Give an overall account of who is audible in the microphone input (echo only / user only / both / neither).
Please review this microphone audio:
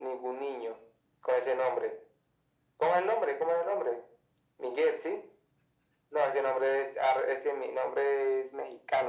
echo only